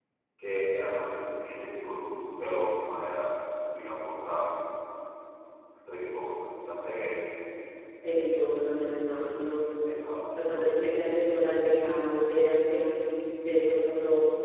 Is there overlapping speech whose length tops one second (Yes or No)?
No